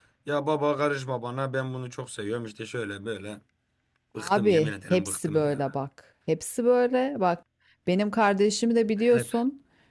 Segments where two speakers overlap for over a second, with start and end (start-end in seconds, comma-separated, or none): 4.2-5.7